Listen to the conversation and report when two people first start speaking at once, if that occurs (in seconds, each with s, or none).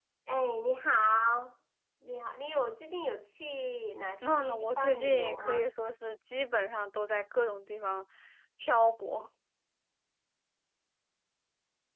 4.2 s